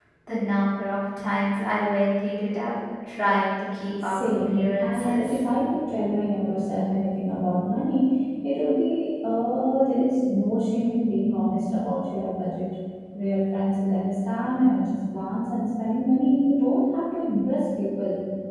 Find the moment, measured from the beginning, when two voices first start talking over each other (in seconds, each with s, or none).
4.0 s